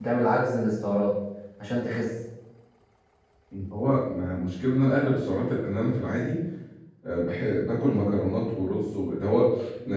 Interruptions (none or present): none